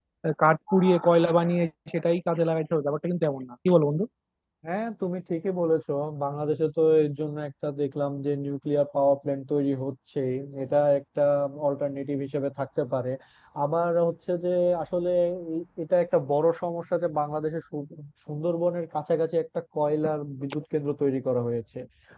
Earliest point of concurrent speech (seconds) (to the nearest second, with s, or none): none